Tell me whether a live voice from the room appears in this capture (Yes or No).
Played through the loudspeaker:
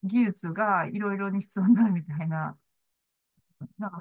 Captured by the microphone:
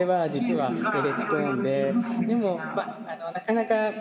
Yes